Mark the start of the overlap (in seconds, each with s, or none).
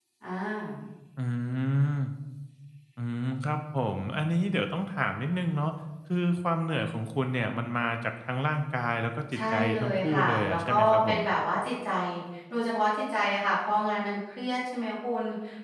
9.3 s